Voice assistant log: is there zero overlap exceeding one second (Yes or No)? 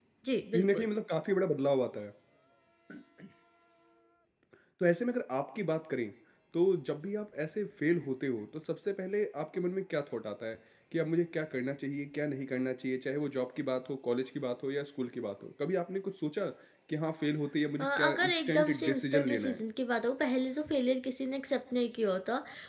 No